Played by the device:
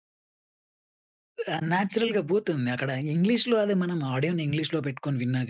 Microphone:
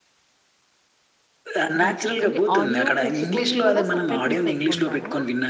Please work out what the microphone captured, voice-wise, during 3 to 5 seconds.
both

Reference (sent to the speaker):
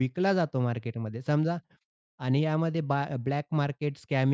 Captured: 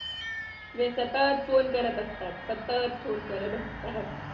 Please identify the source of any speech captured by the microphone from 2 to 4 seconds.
user only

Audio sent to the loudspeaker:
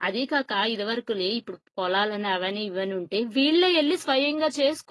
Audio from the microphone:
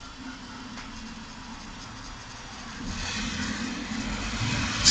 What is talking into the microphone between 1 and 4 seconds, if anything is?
neither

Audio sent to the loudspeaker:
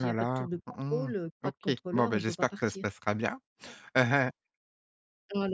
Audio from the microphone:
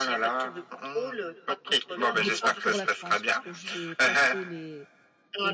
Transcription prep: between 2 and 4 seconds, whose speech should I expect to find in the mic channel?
both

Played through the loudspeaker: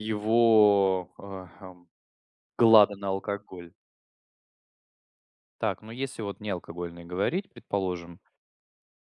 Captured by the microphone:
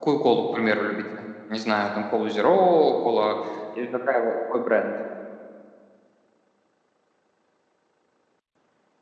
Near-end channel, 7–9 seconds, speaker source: neither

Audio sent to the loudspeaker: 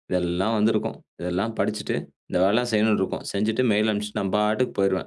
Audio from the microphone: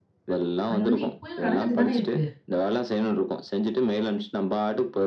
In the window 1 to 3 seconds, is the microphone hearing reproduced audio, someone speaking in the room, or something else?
both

